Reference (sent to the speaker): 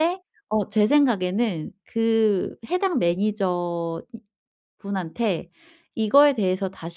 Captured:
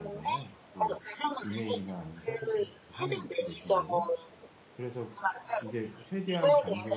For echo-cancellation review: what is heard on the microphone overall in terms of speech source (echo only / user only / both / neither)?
both